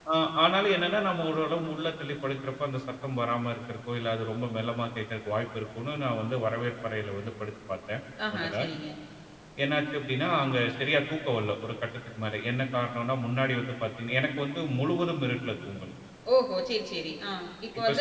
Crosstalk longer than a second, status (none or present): none